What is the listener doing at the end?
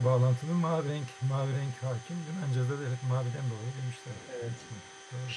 taking over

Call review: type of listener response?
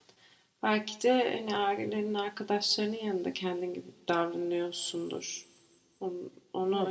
listening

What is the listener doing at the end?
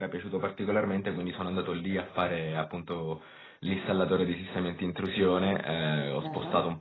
listening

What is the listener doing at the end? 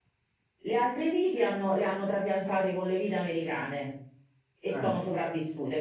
listening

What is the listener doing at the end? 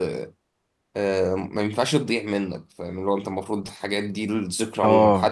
listening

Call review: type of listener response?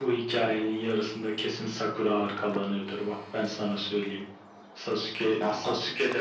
listening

